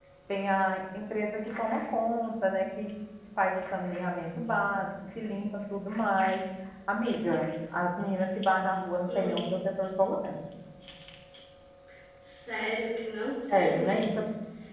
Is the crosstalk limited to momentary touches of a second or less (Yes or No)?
Yes